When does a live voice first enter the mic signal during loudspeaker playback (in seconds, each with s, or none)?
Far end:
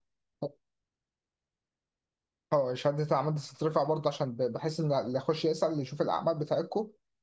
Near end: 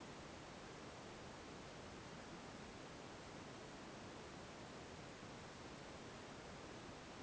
none